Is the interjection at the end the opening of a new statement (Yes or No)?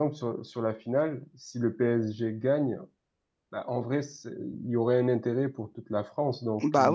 Yes